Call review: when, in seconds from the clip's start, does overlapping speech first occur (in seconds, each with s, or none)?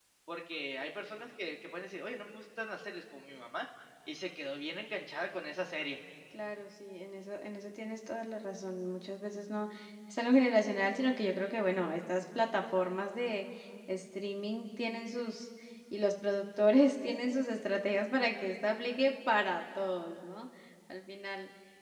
none